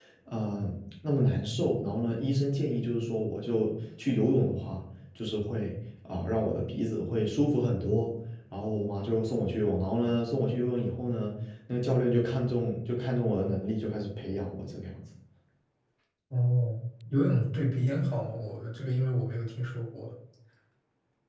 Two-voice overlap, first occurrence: none

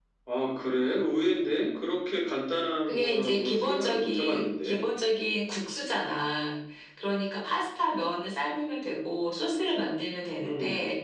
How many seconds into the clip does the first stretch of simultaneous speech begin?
2.8 s

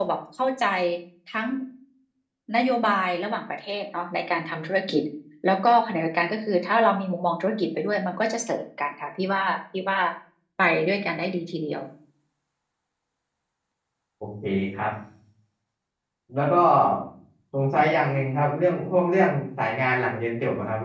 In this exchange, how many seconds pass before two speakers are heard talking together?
none

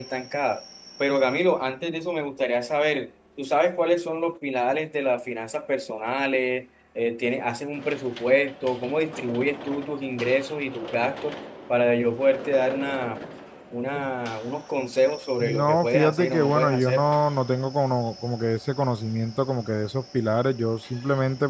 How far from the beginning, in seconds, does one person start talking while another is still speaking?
15.4 s

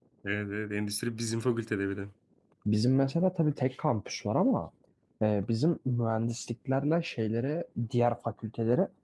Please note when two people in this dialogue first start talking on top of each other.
none

